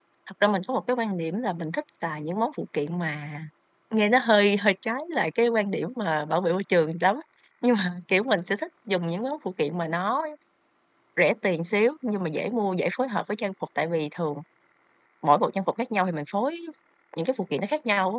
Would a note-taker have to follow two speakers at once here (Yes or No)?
No